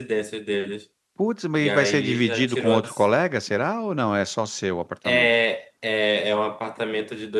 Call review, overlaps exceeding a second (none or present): present